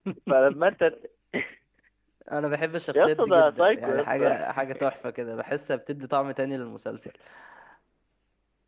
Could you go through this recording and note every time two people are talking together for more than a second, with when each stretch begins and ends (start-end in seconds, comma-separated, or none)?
2.9-4.4